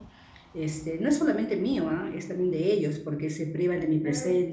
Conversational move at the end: listening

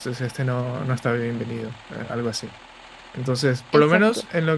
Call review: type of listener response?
listening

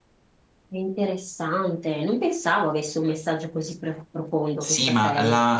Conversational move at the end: taking over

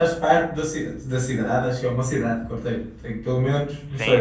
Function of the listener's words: taking over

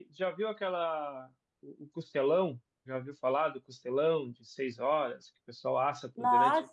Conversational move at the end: taking over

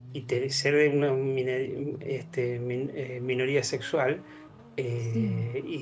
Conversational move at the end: listening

